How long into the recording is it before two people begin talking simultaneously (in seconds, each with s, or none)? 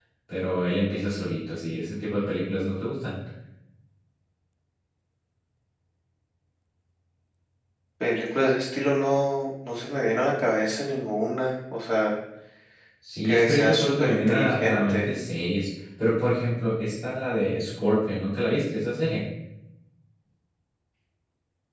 13.2 s